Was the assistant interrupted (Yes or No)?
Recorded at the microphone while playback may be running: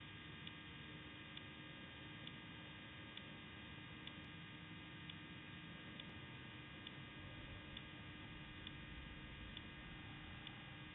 No